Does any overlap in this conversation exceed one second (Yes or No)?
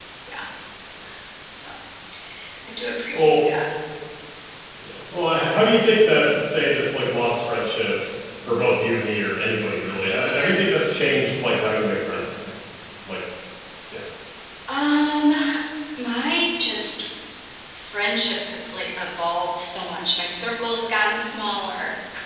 No